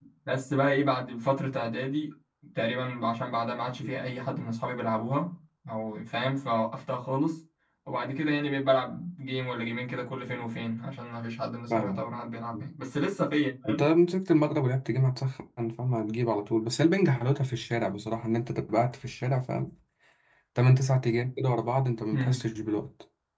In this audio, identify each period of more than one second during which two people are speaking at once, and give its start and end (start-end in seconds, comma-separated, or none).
none